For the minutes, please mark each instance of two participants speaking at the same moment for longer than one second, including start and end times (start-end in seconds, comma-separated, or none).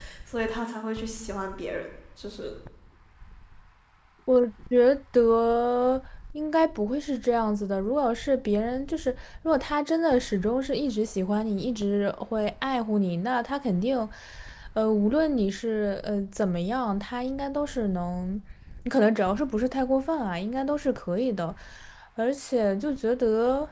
none